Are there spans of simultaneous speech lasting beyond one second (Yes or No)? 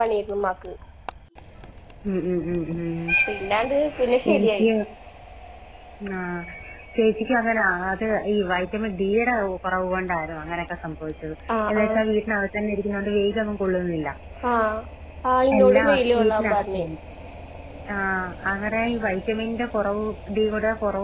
Yes